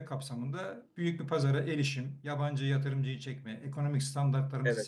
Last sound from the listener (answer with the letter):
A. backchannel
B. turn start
A